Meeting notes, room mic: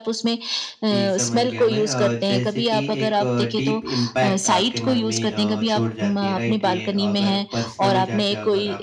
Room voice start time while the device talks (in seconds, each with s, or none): 0.9 s